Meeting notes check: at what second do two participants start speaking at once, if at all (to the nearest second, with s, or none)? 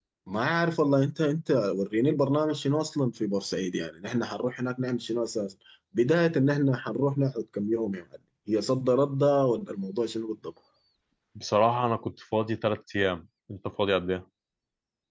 none